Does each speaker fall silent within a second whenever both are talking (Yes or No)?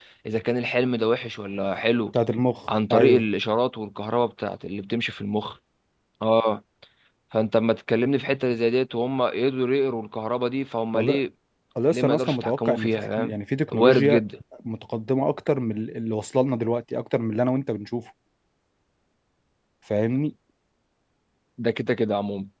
No